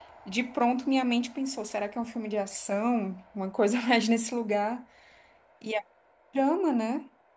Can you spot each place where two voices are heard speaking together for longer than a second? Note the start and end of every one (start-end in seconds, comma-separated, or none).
none